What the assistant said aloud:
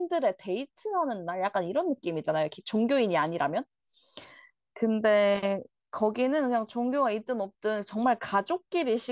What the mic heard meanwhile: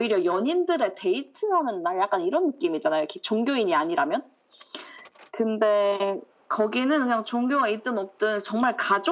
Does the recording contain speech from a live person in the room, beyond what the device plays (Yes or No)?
No